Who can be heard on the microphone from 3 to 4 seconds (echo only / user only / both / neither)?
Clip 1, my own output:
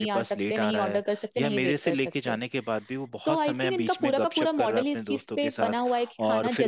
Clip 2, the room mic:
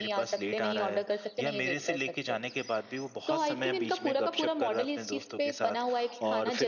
echo only